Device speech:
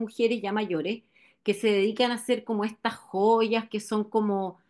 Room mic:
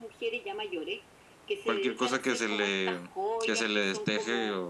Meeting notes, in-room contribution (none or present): present